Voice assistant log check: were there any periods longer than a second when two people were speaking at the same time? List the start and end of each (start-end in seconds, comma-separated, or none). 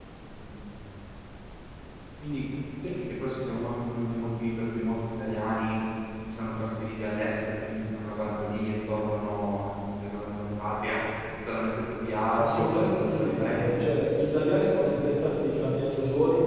12.3-13.8